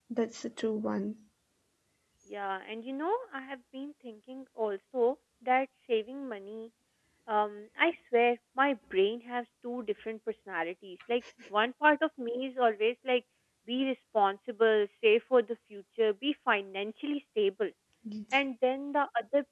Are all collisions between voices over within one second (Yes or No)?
Yes